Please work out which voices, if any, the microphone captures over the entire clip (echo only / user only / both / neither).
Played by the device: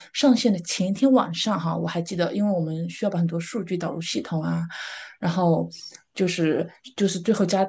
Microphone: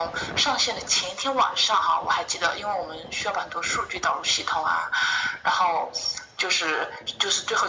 echo only